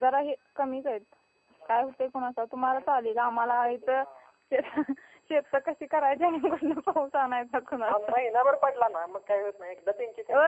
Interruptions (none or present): present